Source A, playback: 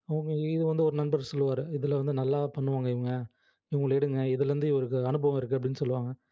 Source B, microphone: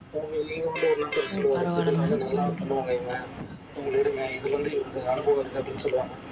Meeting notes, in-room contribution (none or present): present